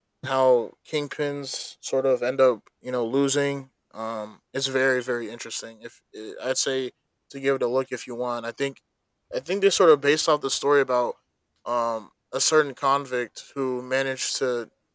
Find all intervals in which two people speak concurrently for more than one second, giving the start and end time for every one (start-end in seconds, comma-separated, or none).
none